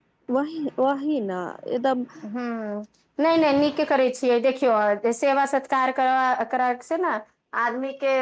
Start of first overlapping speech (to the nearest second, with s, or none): none